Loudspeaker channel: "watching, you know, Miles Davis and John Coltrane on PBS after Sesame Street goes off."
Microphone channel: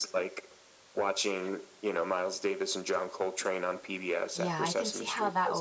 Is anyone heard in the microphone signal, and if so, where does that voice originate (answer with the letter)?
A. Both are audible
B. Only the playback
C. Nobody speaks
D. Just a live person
A